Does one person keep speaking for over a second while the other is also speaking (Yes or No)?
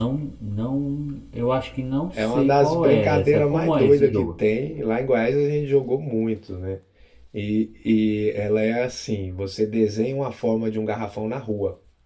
Yes